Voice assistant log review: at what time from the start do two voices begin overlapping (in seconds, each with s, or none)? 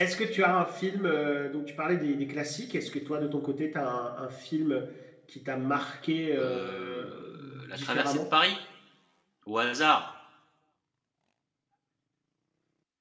6.4 s